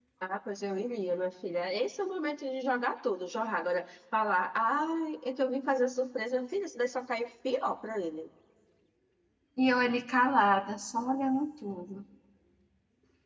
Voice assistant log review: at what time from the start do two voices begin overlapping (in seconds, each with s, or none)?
none